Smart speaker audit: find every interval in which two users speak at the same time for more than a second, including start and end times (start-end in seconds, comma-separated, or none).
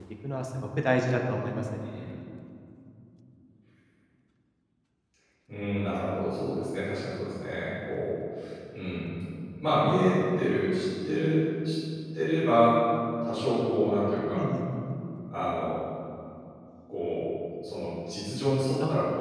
none